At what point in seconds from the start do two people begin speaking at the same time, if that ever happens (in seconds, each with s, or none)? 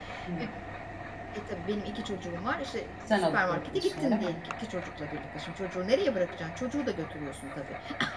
3.1 s